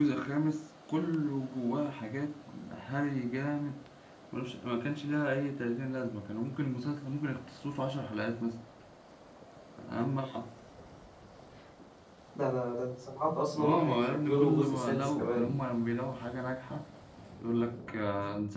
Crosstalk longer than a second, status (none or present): present